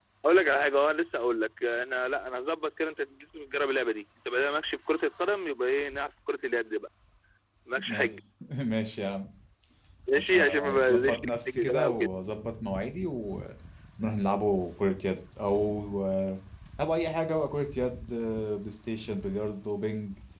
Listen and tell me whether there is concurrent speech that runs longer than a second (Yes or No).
Yes